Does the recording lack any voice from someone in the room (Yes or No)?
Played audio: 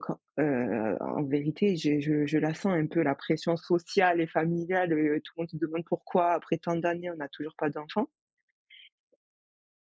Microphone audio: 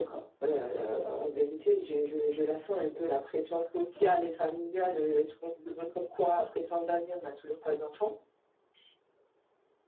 No